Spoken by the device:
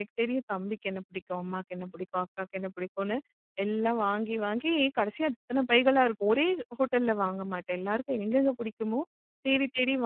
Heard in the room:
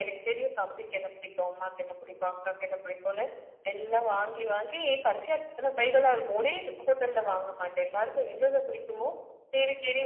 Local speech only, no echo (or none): none